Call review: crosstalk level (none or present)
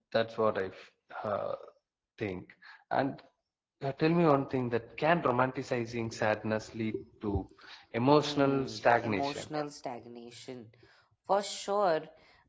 present